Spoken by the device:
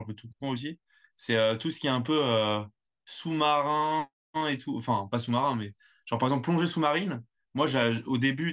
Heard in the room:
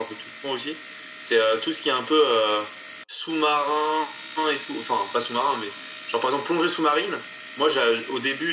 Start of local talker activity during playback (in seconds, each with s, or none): none